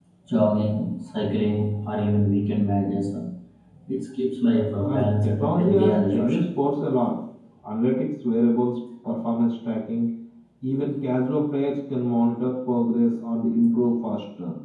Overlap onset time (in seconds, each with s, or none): 4.8 s